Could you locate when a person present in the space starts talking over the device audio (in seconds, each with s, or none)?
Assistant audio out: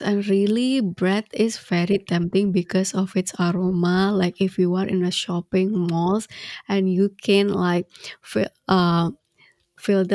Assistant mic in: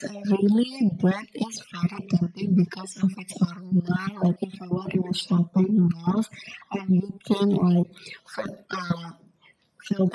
none